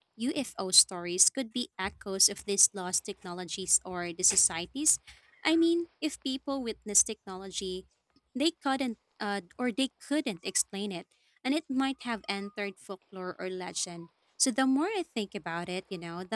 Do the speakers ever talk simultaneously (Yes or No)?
No